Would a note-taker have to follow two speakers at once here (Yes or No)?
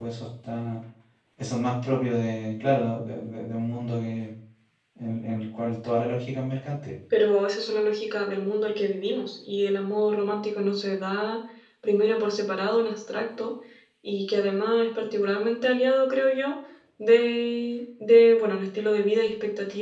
No